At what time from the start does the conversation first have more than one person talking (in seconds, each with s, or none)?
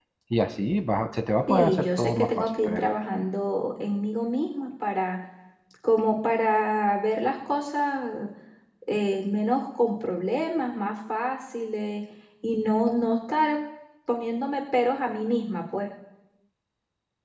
1.5 s